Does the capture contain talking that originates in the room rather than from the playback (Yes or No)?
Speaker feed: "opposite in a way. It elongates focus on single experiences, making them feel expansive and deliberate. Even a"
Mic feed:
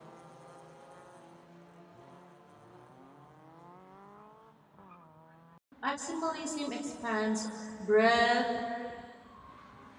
Yes